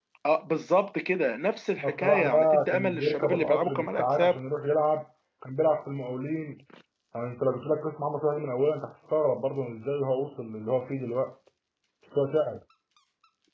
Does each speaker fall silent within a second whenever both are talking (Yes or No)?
No